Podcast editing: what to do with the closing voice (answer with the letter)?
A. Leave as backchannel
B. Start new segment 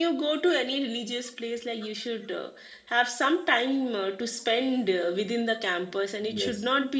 A